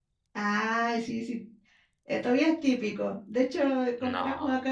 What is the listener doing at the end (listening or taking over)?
listening